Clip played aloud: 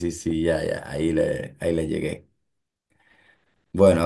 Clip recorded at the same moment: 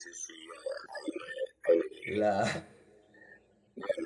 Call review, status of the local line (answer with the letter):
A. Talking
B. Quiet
A